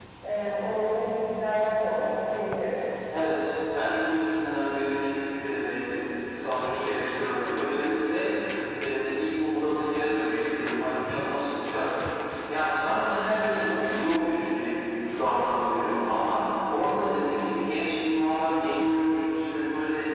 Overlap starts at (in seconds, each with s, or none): none